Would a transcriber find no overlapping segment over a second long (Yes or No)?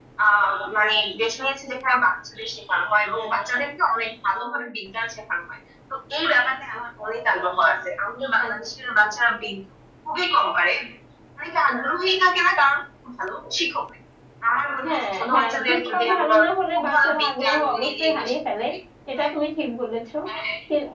No